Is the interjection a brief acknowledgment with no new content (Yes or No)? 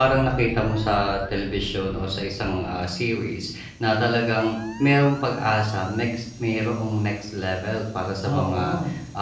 Yes